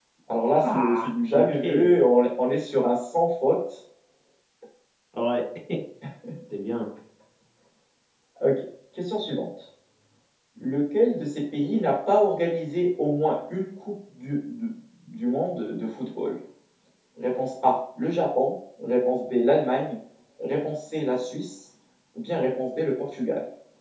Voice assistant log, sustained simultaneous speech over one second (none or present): present